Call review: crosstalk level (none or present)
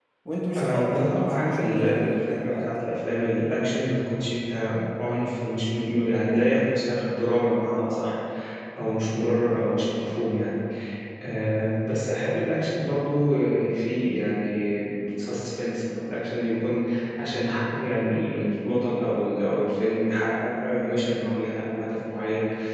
present